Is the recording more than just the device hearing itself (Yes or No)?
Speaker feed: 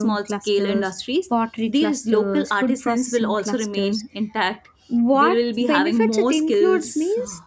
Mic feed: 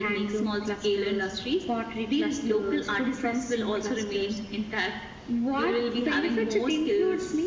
No